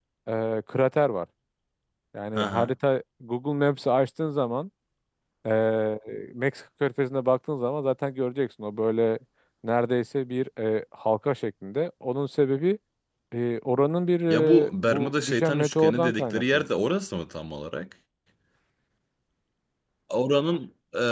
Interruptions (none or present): present